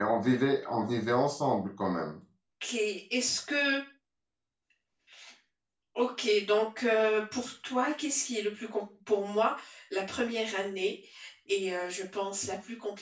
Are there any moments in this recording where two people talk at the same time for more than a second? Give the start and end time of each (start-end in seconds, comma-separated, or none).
none